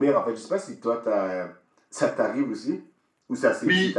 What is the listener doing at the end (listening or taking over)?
taking over